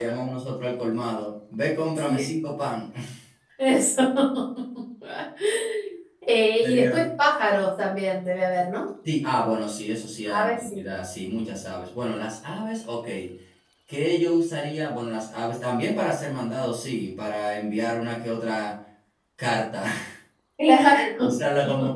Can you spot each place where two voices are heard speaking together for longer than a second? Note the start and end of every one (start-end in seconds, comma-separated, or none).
none